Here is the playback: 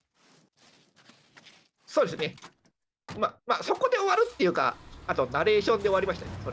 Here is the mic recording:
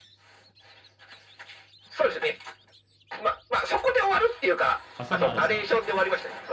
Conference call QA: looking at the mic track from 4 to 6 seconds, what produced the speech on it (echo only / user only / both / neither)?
both